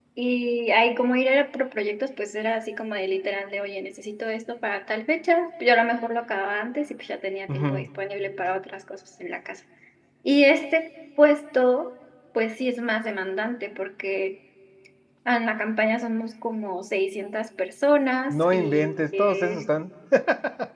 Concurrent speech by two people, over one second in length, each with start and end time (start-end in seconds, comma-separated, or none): 18.3-19.7